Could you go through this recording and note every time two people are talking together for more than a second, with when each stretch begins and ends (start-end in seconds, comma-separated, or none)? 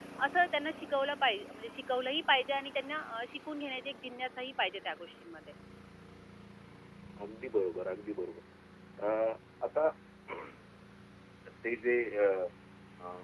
none